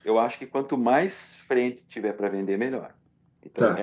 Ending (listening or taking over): taking over